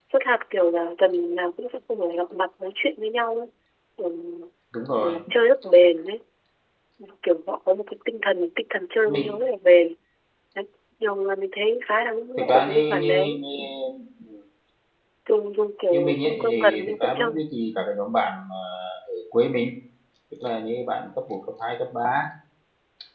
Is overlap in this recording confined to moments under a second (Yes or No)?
No